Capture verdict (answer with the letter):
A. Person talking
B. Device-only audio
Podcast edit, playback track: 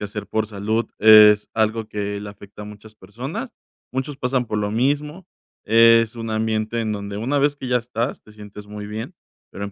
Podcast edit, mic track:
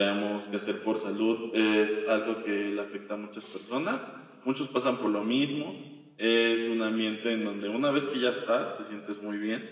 B